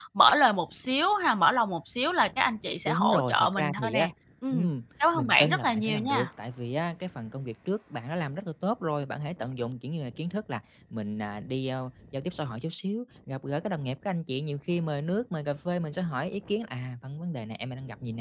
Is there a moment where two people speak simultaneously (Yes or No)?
Yes